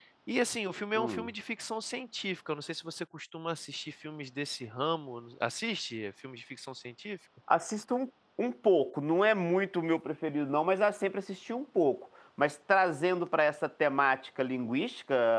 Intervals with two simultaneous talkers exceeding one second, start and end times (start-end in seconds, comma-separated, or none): none